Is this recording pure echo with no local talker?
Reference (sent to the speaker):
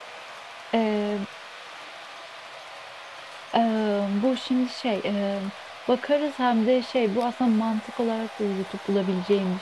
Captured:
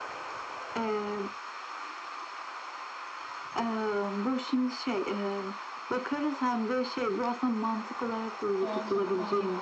No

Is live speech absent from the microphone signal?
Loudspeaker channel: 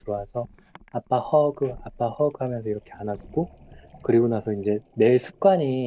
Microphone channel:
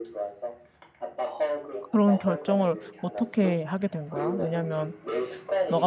No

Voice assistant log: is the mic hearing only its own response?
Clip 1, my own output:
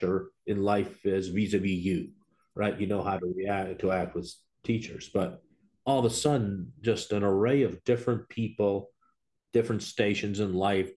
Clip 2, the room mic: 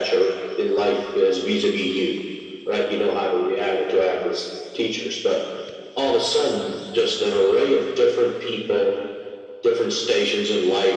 Yes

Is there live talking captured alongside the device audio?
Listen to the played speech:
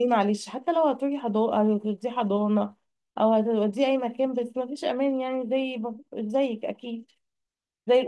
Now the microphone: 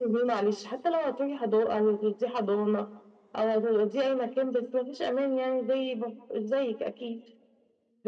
No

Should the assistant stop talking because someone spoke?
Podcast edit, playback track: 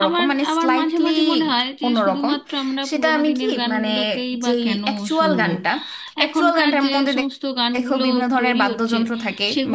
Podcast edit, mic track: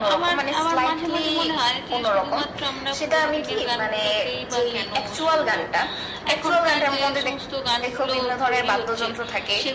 No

